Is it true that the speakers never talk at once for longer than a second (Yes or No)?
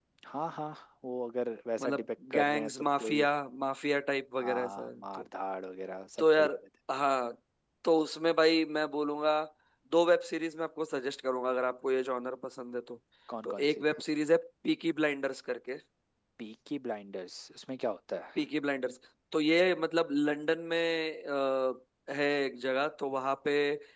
No